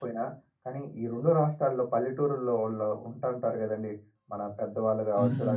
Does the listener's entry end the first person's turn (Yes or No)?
No